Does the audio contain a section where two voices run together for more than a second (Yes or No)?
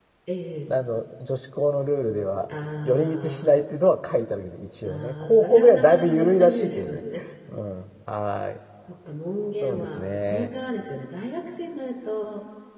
Yes